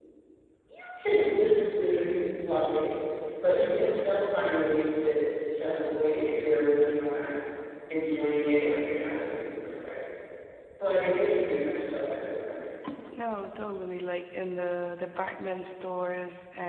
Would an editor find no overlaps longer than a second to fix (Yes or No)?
Yes